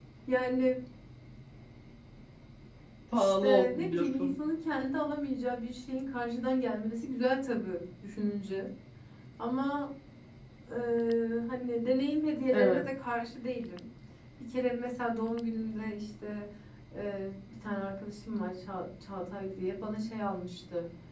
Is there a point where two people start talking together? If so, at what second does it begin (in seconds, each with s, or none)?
3.1 s